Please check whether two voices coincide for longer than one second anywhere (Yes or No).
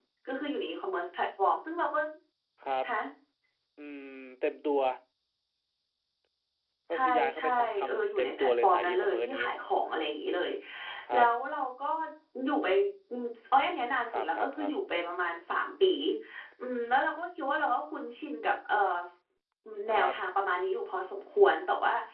Yes